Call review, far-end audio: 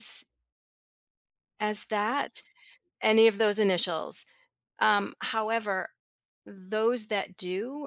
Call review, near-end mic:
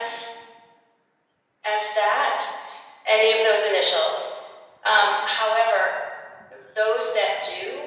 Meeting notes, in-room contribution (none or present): none